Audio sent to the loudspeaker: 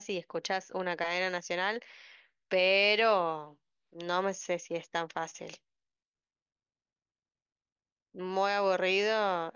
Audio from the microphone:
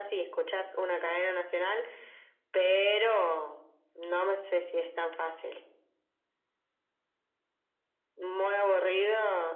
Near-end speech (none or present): none